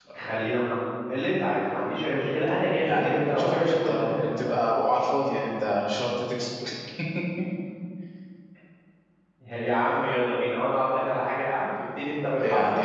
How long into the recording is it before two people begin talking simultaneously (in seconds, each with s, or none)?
2.8 s